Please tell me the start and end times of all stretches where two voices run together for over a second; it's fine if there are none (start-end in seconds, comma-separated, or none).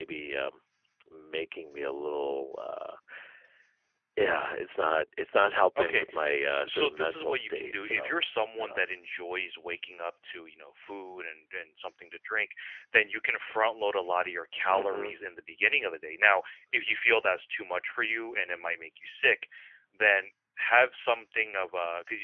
6.5-8.1